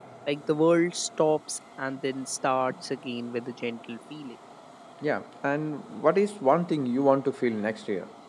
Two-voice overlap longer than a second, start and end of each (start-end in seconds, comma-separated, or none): none